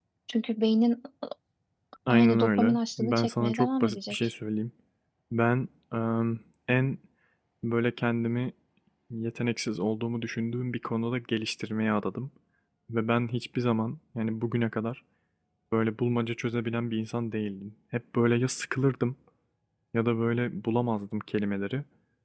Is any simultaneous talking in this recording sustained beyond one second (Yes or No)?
Yes